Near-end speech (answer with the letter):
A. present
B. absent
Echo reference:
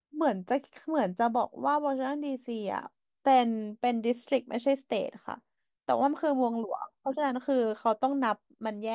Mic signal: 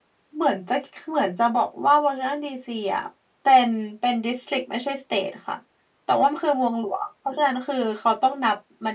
B